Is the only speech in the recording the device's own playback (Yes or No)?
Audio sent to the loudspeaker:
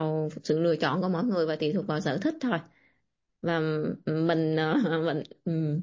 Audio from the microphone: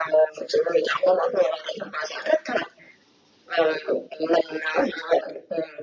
Yes